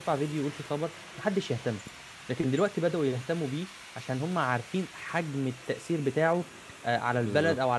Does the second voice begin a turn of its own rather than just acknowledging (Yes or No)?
Yes